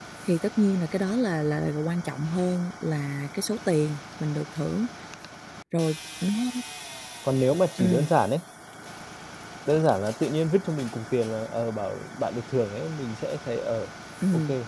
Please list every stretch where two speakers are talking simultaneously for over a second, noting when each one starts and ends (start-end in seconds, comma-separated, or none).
none